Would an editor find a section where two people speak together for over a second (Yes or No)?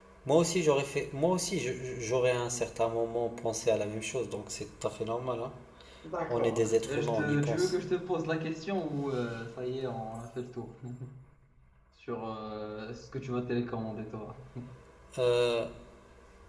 Yes